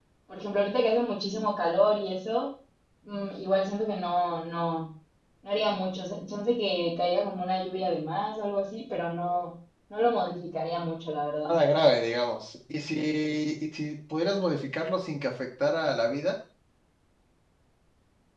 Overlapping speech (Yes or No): No